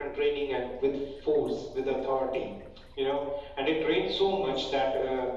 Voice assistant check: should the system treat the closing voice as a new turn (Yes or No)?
No